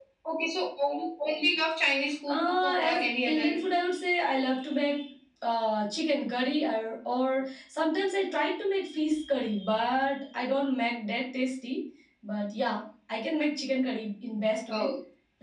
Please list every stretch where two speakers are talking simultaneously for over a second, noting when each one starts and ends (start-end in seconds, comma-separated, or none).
2.3-3.5